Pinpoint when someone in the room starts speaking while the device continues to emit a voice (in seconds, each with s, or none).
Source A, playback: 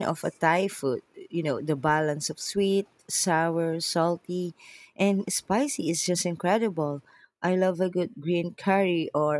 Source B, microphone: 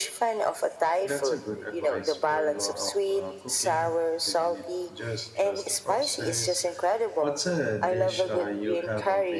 1.0 s